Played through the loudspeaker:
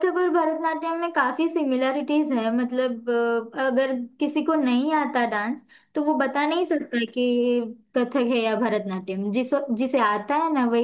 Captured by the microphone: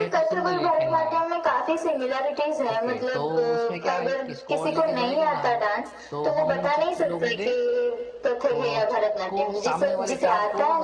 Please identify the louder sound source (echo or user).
echo